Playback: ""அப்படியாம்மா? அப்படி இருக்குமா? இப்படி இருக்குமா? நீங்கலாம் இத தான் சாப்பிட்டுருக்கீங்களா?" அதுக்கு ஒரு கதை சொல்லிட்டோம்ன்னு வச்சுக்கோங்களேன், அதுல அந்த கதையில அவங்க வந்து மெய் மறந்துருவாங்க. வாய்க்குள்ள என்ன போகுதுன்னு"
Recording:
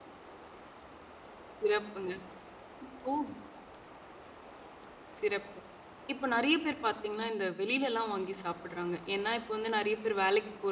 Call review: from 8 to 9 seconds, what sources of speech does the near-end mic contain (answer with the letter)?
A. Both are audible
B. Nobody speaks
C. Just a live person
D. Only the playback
C